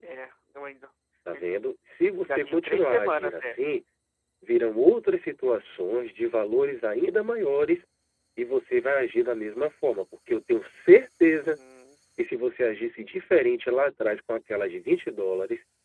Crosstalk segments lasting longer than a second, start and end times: 2.2-3.5

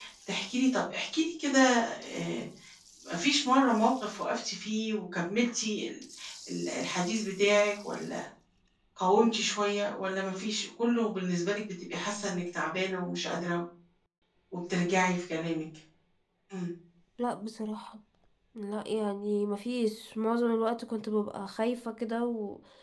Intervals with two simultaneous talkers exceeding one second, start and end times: none

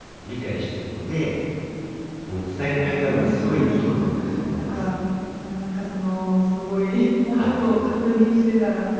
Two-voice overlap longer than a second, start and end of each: 2.7-4.1

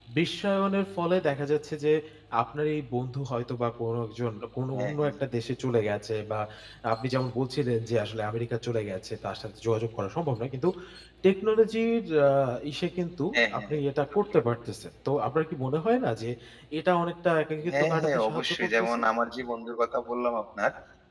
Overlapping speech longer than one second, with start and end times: 17.7-19.0

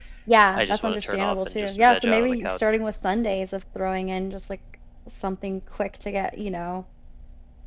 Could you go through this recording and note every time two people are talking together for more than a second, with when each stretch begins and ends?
0.5-2.6

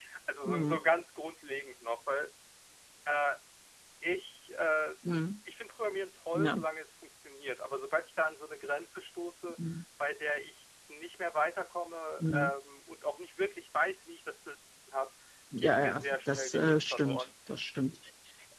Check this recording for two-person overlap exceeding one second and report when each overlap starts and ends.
15.6-17.2

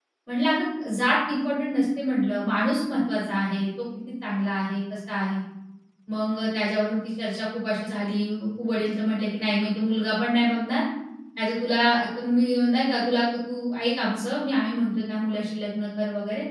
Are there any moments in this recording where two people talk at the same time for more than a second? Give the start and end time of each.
none

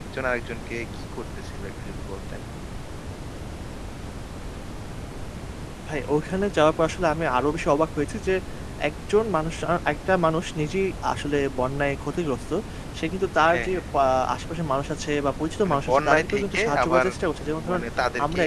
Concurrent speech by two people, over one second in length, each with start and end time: 15.6-17.1

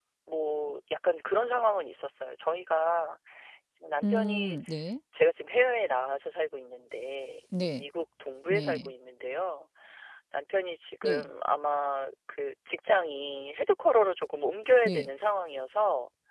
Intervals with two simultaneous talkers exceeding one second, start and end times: none

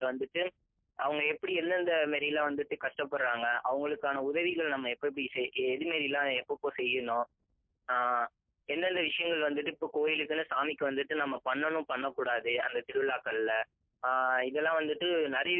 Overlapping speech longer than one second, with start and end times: none

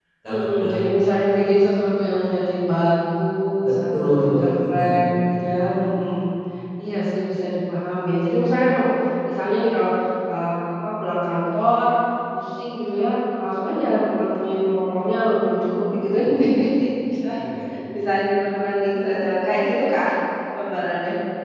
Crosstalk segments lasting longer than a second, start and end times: 3.6-5.1

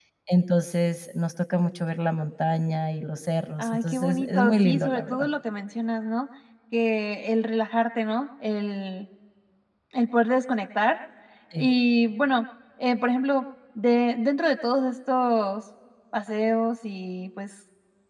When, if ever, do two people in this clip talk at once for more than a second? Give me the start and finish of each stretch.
3.6-5.3

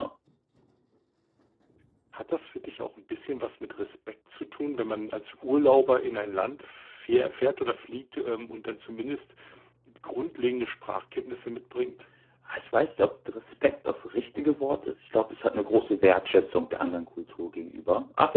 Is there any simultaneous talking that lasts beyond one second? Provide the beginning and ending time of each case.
none

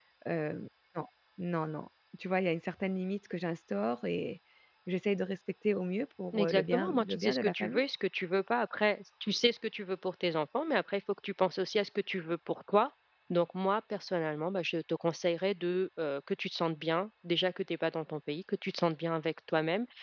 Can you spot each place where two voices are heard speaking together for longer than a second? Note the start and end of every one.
6.3-7.8

